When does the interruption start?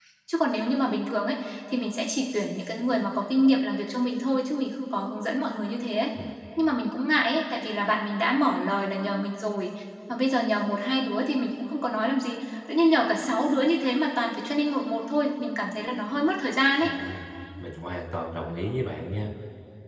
none

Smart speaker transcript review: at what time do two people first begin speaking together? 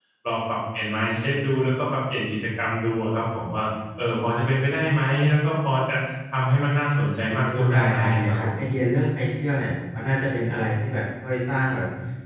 7 s

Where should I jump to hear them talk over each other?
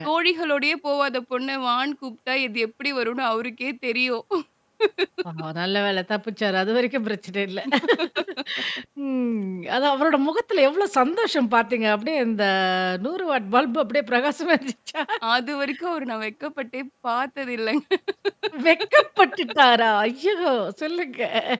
none

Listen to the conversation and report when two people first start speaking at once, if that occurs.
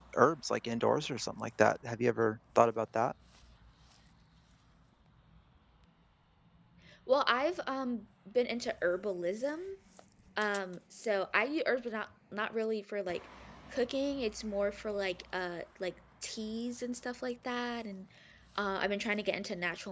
none

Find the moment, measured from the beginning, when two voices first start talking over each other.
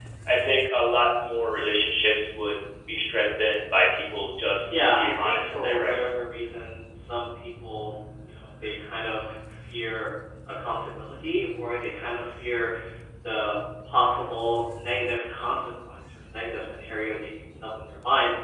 5 s

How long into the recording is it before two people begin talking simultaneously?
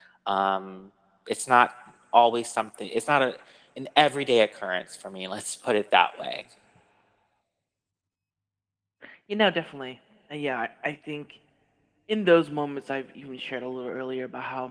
none

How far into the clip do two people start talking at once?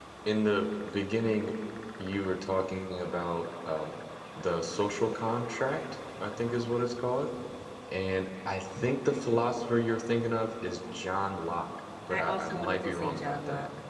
12 s

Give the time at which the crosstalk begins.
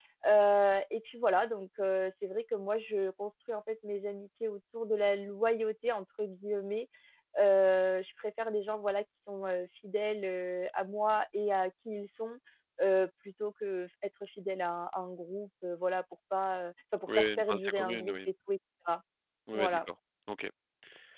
17 s

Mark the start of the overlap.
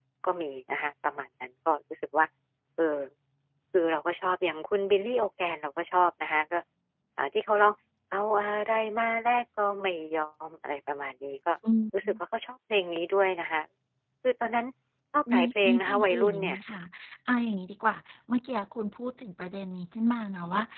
15 s

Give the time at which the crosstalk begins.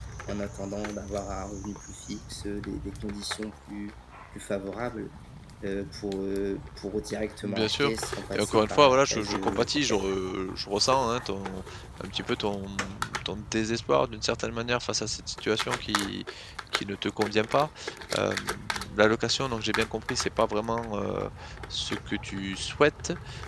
7 s

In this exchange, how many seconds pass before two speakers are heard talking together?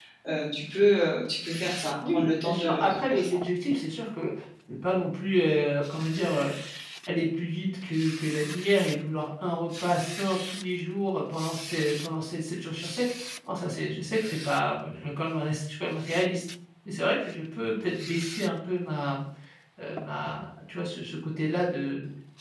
2 s

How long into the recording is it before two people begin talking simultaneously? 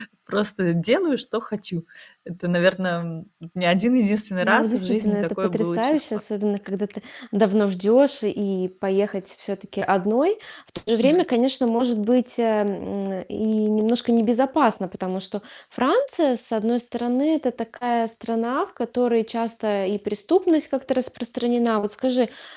4 s

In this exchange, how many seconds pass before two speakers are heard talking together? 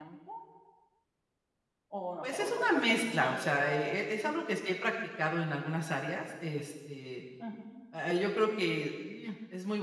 2 s

